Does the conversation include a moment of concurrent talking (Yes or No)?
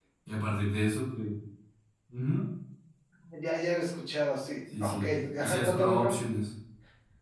Yes